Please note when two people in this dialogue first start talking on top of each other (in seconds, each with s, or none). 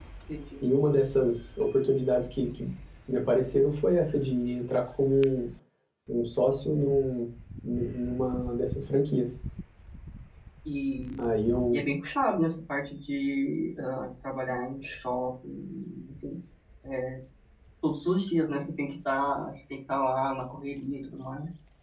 none